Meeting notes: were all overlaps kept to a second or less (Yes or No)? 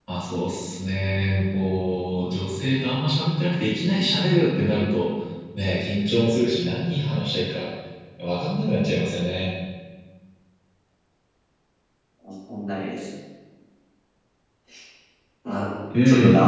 Yes